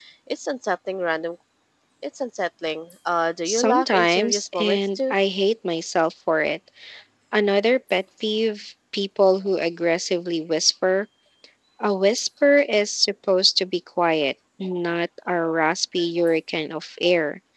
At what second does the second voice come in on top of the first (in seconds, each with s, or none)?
3.5 s